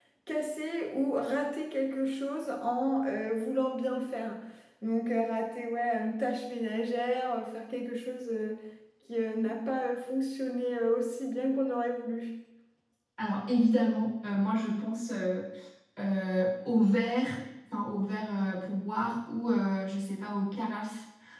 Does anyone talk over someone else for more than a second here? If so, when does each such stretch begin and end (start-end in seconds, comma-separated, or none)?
none